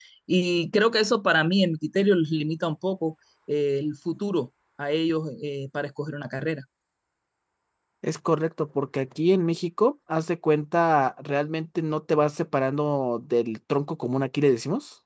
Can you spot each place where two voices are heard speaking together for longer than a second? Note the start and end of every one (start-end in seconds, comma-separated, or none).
none